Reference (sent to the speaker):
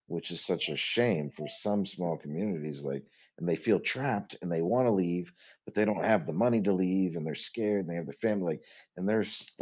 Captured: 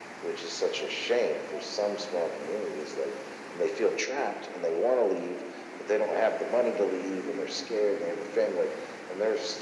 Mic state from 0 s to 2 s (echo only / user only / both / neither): echo only